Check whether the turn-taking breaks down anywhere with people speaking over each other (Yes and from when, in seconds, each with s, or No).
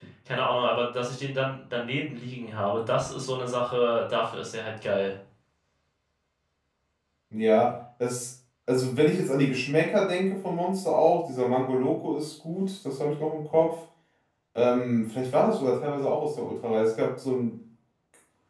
No